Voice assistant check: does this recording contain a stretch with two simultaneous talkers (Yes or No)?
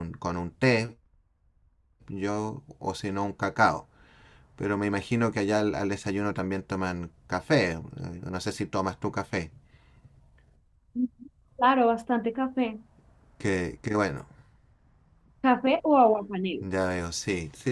No